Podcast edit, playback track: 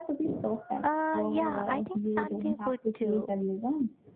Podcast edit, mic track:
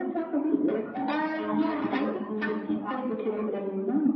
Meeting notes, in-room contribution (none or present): none